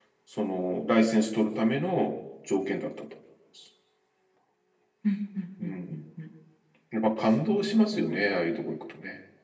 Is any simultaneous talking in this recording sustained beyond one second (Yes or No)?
No